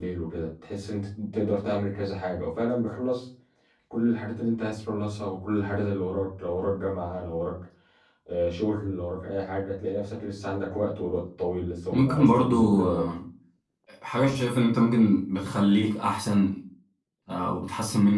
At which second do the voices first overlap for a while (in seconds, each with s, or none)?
11.9 s